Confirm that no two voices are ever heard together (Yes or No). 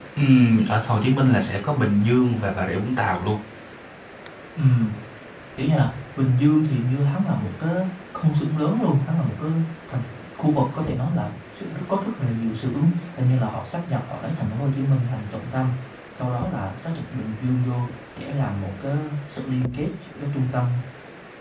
Yes